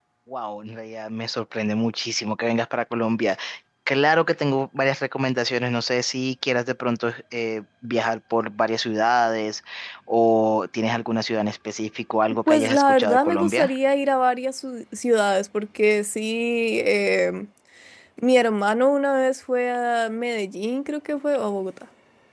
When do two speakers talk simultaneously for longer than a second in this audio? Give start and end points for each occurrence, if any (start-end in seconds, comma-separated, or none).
12.5-13.8